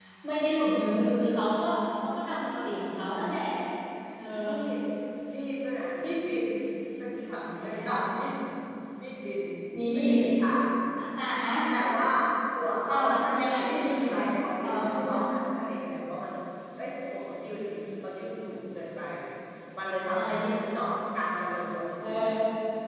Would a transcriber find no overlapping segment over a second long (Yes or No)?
No